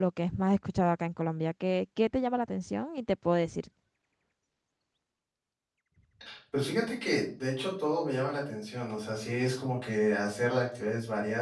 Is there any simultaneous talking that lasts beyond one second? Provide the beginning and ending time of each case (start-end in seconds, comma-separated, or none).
none